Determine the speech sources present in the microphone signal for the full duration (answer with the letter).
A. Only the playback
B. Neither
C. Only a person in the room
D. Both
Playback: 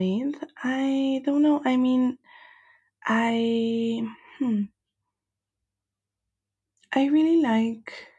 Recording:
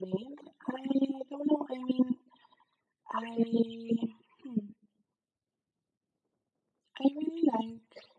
A